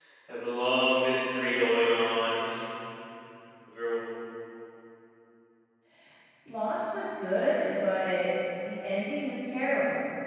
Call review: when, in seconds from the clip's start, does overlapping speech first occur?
none

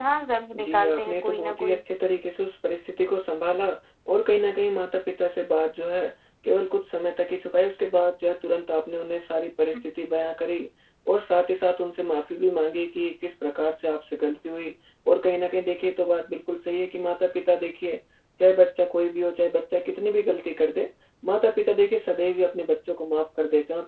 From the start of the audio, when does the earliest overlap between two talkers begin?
0.5 s

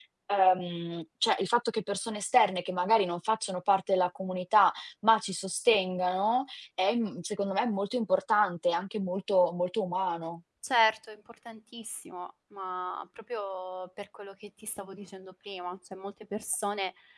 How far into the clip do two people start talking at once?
none

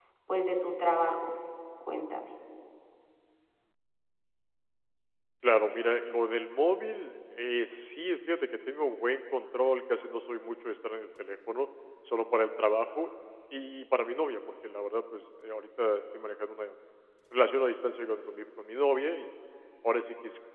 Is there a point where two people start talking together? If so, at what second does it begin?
none

